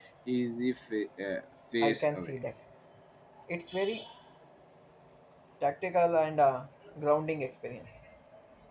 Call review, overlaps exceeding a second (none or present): none